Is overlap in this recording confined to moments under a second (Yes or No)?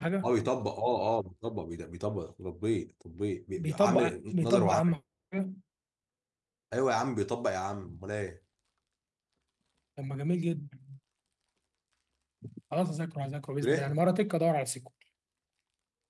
No